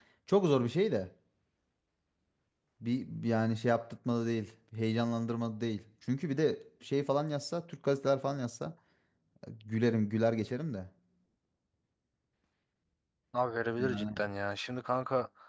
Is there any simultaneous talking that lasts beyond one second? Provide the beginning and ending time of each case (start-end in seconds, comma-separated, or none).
none